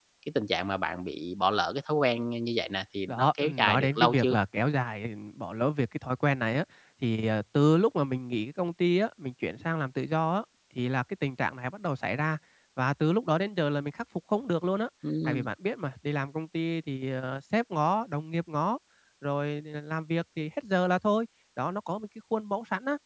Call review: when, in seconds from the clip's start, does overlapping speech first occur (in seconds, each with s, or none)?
3.1 s